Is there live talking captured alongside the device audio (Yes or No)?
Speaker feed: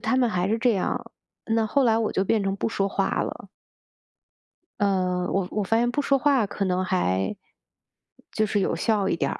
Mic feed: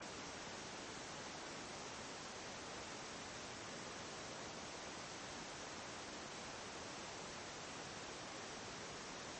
No